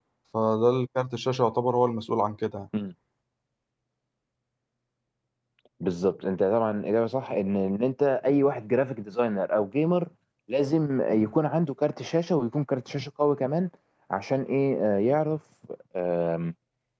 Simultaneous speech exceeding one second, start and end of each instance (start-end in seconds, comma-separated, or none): none